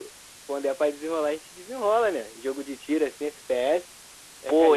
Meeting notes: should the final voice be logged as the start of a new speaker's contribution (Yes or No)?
Yes